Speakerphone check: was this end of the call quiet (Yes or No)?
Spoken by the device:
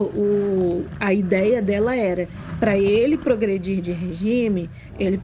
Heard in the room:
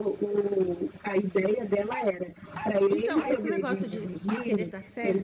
No